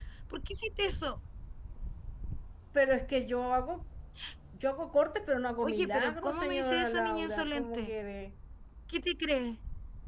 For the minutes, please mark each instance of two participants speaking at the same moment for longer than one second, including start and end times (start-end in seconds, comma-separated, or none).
5.6-7.9